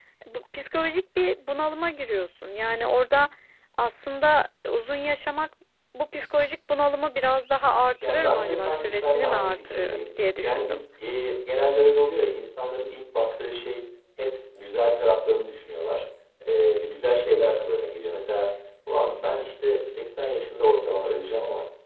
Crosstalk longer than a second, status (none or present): present